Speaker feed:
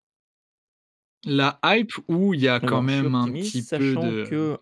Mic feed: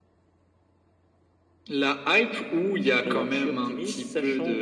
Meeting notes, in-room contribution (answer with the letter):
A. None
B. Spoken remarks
A